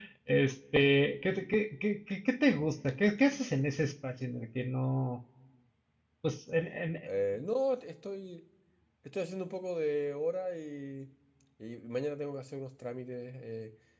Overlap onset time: none

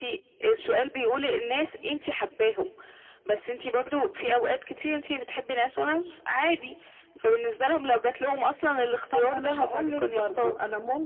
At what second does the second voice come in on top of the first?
9.1 s

